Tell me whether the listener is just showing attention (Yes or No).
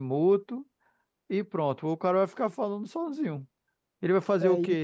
Yes